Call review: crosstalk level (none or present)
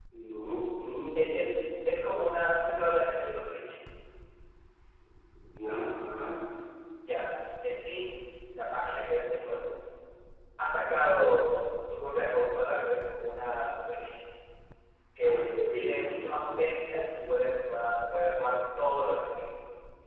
present